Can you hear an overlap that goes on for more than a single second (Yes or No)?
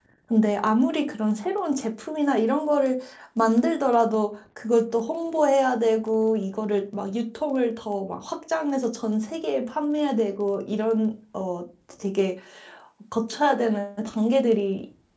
No